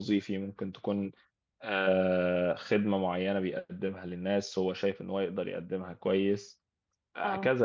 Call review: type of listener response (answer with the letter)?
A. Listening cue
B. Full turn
A